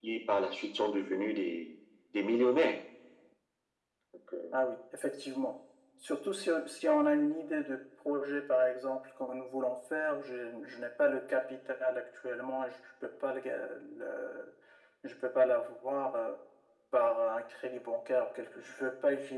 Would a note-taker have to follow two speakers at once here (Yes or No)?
No